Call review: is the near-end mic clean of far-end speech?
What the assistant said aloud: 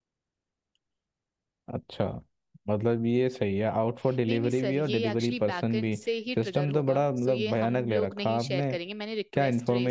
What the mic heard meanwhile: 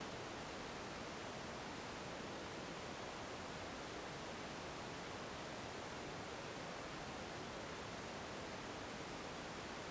Yes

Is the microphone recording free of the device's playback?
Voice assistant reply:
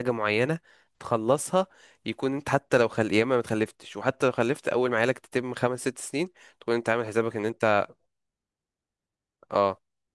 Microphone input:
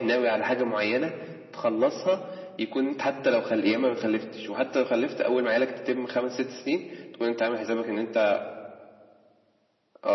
No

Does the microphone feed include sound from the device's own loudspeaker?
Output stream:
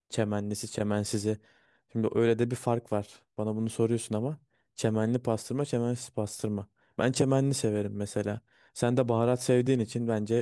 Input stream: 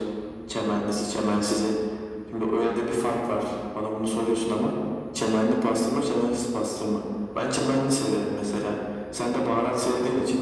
Yes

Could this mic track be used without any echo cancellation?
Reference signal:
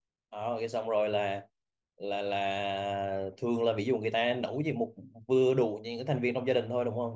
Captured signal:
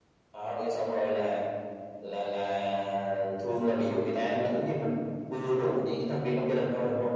No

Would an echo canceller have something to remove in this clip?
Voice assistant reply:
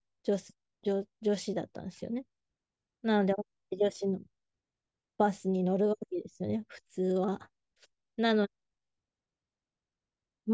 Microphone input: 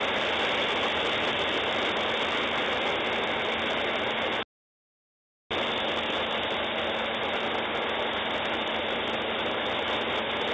No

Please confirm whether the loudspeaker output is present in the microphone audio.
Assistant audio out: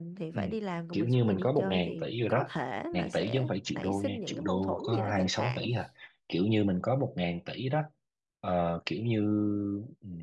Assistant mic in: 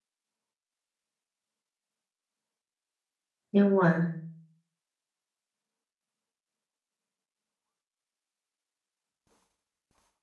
No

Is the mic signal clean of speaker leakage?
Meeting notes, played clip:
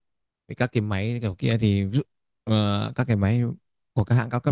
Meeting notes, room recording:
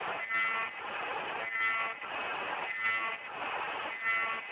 Yes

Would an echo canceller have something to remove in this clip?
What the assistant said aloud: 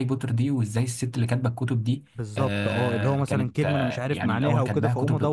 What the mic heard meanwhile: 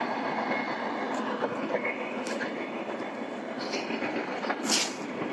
No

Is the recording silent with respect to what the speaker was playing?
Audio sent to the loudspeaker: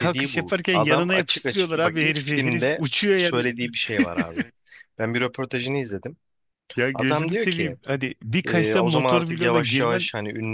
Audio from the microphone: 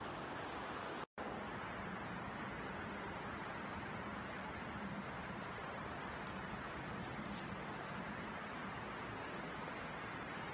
Yes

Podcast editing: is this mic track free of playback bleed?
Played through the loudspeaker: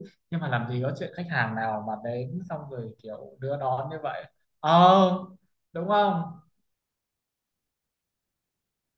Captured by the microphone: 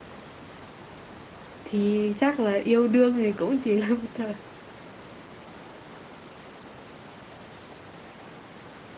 Yes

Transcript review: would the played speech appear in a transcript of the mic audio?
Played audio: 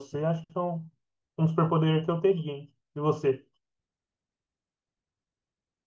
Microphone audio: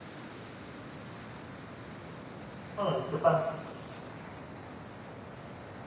No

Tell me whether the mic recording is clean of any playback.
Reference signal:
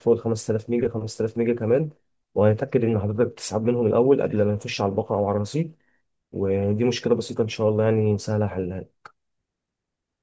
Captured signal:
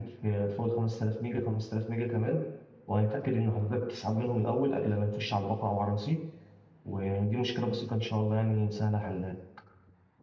No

